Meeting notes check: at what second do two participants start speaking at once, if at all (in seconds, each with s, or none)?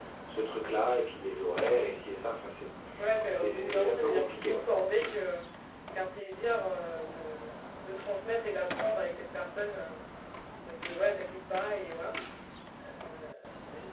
3.3 s